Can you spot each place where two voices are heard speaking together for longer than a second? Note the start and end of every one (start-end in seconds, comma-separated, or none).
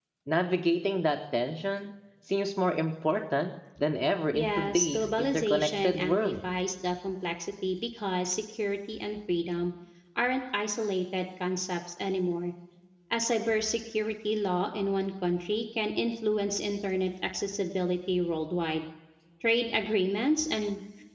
4.3-6.5